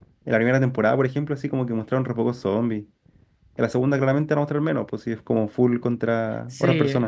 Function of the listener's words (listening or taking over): taking over